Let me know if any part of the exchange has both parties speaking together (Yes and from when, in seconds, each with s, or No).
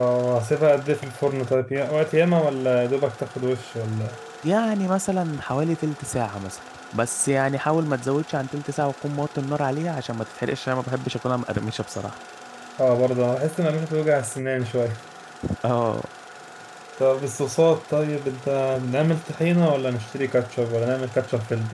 No